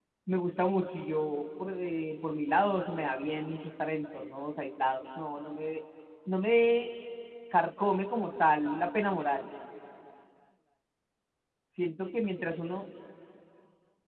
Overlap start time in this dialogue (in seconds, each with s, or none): none